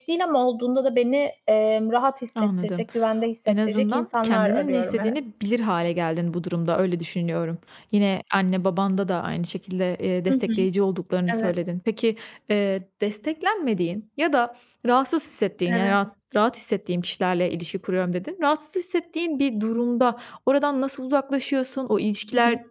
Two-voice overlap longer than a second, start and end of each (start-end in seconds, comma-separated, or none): 3.5-5.1